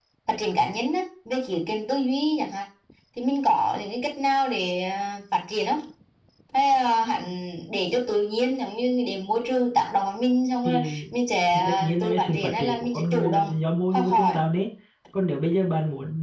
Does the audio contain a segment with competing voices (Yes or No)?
Yes